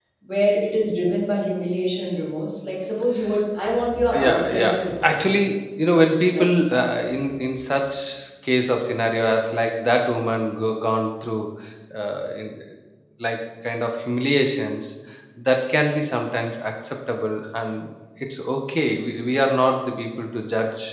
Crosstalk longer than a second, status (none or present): present